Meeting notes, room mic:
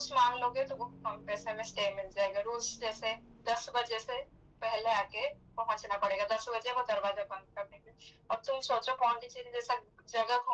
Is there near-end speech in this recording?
No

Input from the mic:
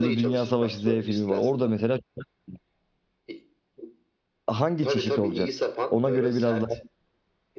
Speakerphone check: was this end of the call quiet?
No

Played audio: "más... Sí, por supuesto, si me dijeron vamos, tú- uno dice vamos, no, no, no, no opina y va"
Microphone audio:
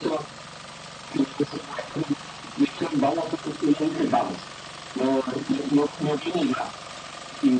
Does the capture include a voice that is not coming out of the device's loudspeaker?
No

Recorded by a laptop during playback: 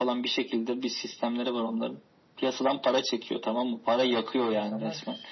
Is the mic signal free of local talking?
No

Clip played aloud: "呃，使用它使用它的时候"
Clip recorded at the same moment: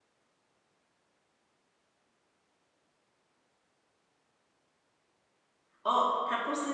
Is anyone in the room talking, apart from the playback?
Yes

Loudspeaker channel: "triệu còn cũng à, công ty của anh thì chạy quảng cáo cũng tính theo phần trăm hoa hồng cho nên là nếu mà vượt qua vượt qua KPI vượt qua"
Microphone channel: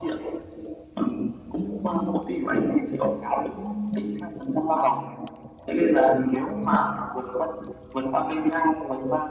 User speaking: No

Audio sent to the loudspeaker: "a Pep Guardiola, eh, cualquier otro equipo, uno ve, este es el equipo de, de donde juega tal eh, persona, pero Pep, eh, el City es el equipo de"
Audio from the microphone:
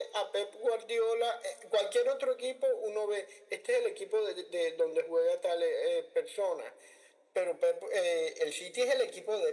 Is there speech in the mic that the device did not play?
No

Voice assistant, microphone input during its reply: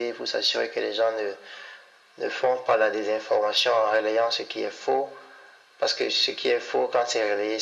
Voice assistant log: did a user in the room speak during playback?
No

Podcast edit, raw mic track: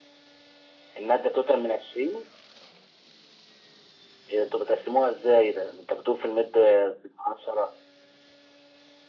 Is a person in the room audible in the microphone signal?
No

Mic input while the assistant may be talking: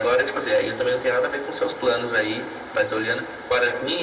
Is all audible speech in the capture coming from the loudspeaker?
Yes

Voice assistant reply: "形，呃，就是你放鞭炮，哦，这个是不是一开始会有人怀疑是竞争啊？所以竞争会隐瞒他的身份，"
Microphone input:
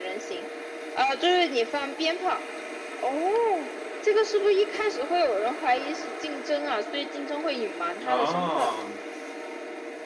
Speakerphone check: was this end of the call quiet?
No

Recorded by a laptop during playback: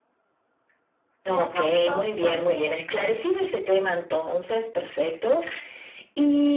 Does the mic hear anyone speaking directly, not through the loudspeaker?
Yes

